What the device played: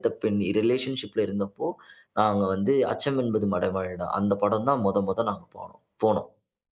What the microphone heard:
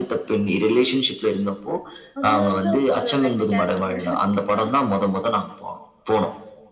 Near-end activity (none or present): present